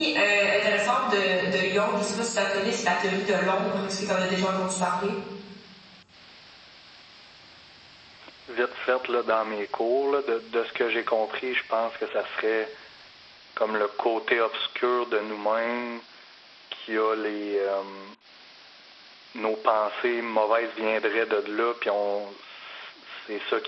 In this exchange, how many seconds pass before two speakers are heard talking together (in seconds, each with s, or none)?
none